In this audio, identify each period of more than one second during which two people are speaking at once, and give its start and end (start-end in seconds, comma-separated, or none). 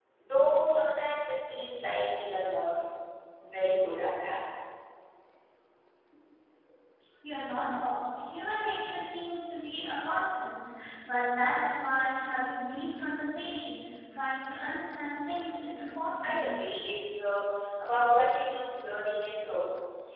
none